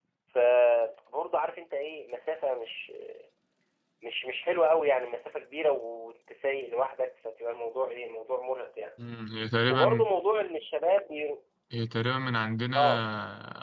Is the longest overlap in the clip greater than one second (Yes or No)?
No